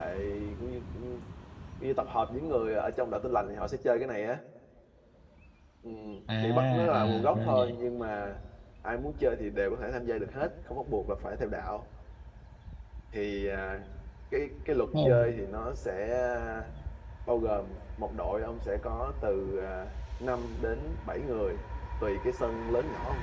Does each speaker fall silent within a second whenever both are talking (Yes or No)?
No